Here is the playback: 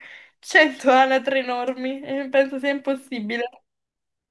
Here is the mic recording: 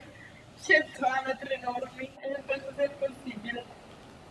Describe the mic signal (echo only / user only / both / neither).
echo only